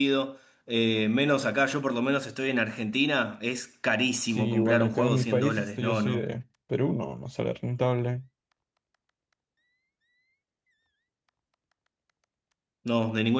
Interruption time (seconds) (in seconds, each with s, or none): 4.3 s